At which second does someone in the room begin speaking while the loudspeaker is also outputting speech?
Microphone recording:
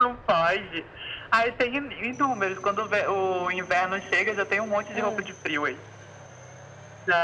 4.9 s

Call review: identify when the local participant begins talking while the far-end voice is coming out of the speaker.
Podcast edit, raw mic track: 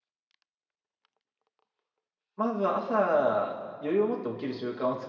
2.4 s

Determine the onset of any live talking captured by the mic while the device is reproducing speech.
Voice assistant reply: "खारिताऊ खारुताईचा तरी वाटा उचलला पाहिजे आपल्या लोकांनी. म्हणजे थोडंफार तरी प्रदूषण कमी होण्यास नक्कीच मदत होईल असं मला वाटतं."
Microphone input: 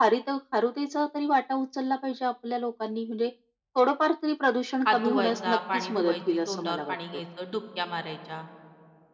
4.8 s

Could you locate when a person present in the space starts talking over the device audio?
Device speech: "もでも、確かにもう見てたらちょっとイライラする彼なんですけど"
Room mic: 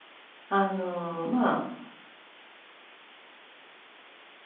0.5 s

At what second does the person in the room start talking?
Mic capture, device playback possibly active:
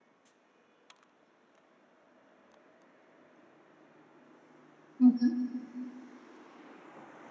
5.0 s

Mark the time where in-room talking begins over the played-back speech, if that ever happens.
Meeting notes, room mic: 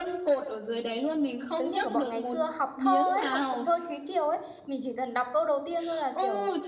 1.6 s

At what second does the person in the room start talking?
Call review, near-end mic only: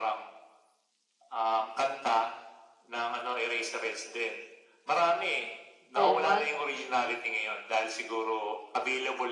5.9 s

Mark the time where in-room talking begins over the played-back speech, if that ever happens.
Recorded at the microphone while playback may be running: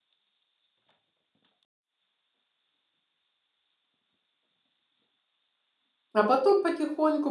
6.1 s

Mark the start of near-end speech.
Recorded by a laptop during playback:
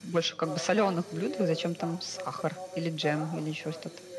0.3 s

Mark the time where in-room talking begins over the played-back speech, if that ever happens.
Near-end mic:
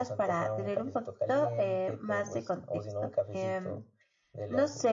none

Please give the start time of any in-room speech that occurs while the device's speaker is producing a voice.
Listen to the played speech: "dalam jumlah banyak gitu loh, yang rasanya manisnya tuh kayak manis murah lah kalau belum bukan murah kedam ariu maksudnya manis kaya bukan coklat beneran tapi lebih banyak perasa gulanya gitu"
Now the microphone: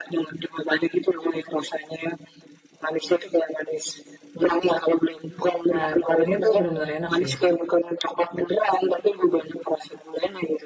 5.7 s

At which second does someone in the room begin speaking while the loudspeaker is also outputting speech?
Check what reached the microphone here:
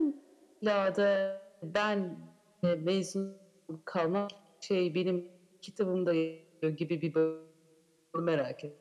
none

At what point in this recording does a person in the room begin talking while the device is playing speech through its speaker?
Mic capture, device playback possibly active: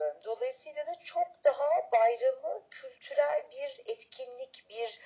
none

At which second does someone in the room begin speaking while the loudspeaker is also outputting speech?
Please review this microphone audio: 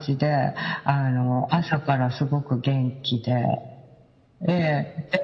none

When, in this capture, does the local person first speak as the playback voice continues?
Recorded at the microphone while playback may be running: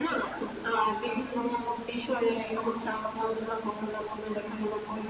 none

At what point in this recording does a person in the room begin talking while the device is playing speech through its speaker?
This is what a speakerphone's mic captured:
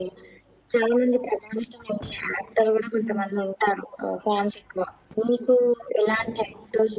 3.0 s

